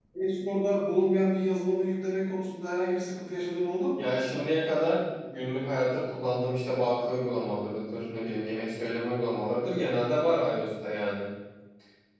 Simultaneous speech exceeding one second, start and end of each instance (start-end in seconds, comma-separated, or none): none